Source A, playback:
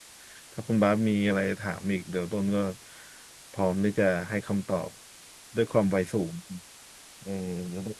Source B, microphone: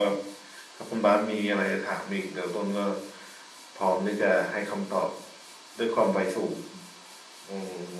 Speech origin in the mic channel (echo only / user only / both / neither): echo only